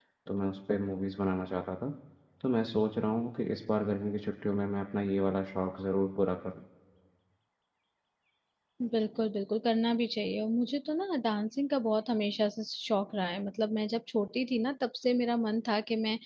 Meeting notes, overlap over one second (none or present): none